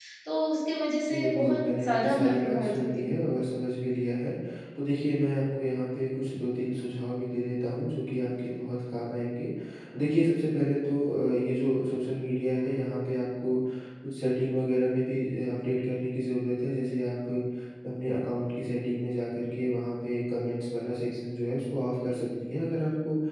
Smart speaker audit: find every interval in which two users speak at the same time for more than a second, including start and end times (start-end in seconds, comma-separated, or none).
1.1-3.1